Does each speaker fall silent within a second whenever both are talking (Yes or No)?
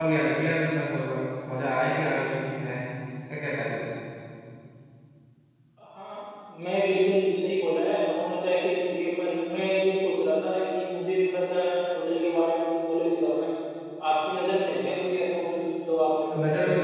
Yes